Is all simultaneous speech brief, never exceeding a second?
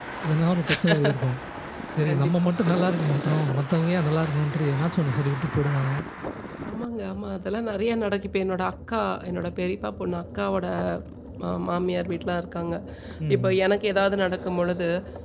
Yes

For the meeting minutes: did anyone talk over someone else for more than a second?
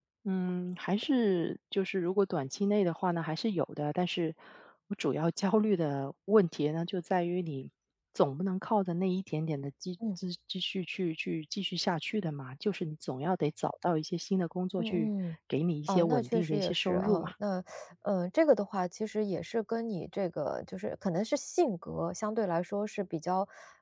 Yes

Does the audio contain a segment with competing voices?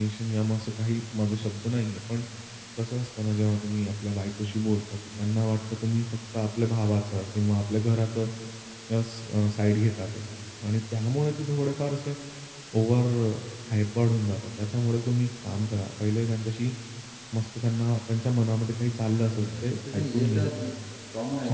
Yes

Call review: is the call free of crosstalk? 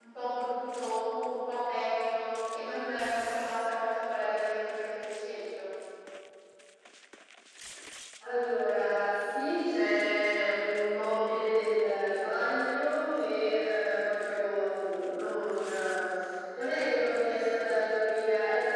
Yes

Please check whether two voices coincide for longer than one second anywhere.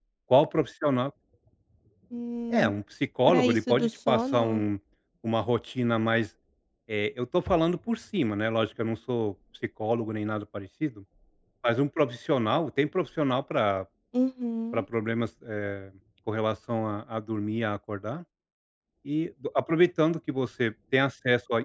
Yes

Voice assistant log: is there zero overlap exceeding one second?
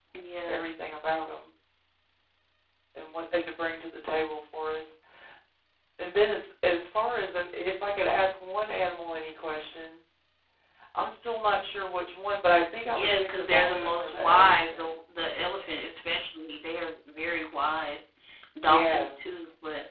No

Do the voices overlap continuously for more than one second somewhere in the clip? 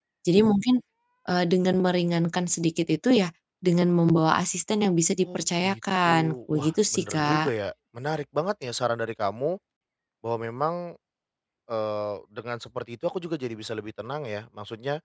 Yes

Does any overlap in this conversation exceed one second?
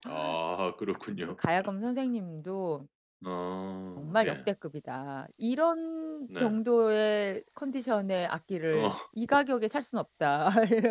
No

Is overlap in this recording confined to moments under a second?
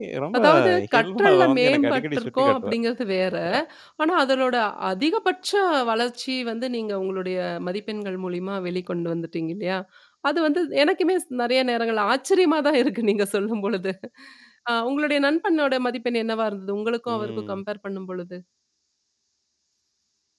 No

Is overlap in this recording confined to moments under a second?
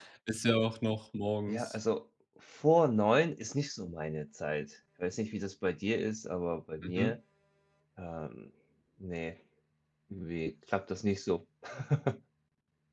Yes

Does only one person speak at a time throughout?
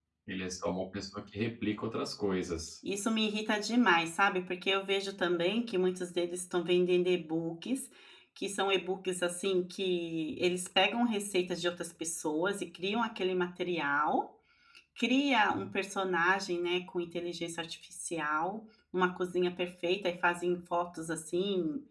Yes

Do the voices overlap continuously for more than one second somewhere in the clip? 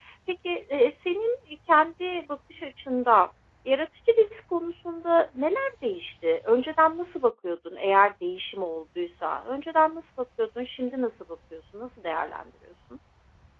No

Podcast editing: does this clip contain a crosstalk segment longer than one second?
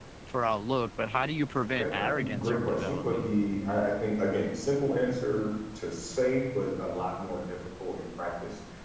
Yes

